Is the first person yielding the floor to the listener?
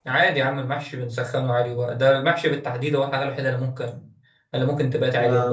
Yes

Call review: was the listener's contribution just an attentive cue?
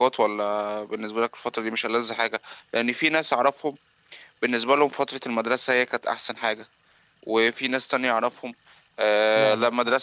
Yes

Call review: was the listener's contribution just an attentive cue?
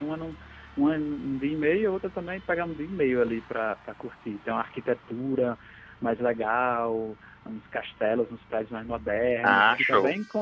Yes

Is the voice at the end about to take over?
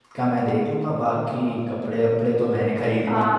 Yes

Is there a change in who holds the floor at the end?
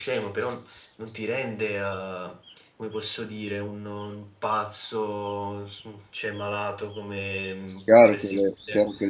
Yes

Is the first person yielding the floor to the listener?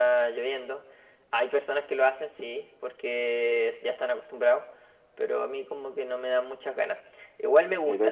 No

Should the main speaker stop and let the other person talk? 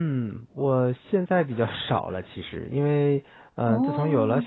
No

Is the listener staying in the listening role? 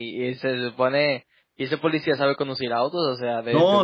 No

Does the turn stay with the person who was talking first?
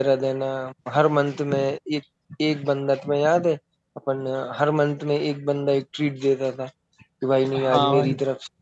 Yes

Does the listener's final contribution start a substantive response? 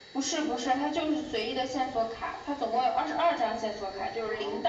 No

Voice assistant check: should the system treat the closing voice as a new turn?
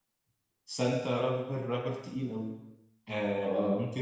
No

